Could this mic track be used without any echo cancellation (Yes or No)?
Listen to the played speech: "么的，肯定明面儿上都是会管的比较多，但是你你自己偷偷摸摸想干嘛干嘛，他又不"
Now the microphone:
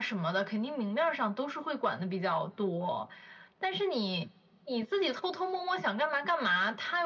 No